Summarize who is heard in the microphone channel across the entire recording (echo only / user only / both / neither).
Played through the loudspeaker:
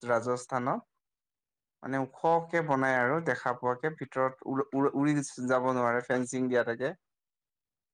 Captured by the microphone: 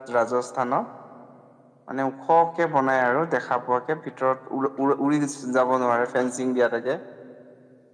echo only